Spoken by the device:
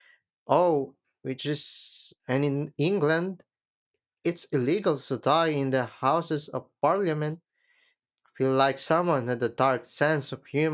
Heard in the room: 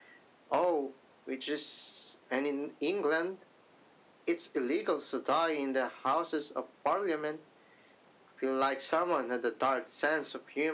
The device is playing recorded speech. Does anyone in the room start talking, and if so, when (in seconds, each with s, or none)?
none